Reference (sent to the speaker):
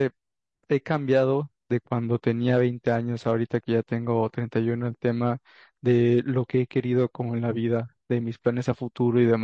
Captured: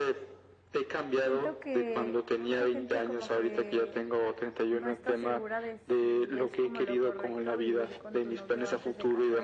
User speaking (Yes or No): Yes